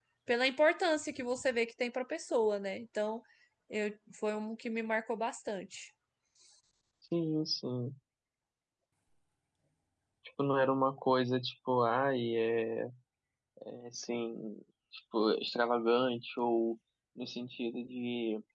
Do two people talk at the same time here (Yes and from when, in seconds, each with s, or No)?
No